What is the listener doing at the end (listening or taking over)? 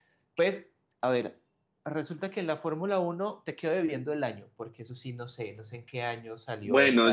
taking over